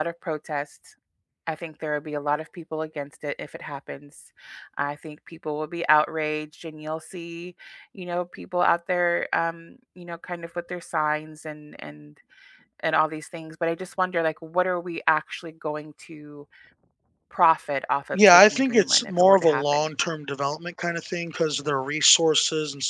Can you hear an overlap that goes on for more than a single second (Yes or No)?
Yes